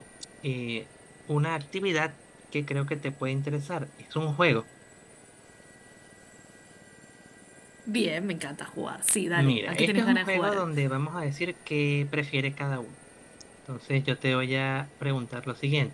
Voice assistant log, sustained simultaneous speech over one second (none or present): present